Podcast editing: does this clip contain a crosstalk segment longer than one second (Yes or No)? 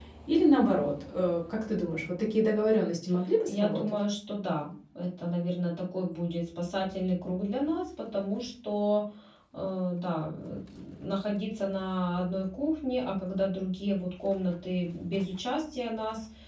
No